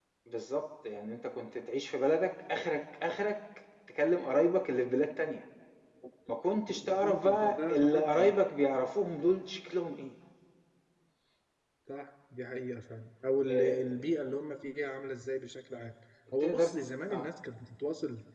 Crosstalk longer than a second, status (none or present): present